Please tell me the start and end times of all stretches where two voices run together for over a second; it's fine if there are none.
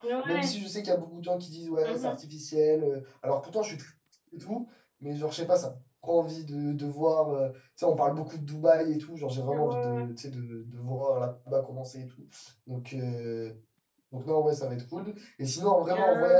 none

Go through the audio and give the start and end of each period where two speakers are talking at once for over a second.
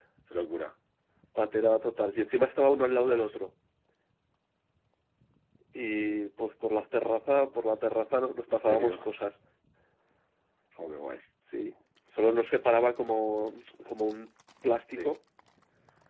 none

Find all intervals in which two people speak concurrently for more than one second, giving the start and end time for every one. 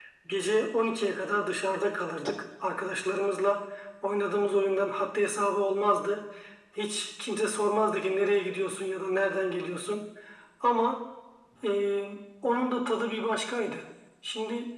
none

